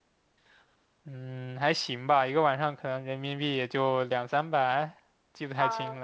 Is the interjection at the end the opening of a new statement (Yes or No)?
Yes